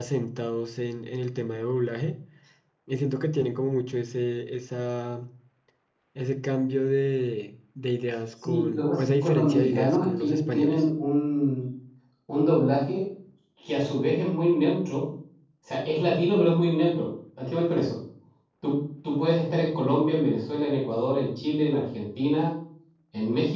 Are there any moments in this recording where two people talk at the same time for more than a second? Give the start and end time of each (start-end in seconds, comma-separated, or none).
8.4-10.8